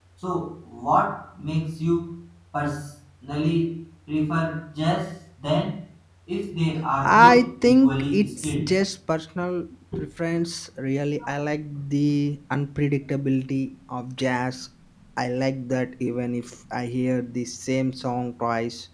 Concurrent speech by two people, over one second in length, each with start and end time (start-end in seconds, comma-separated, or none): 7.0-8.7